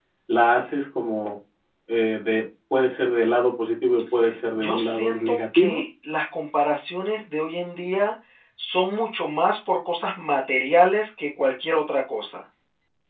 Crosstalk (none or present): present